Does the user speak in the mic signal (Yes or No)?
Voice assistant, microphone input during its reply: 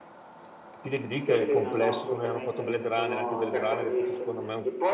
Yes